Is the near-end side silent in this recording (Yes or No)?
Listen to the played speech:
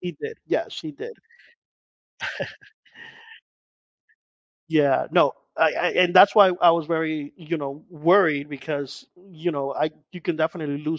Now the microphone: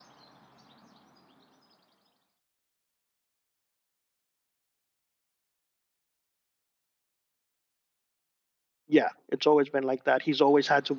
No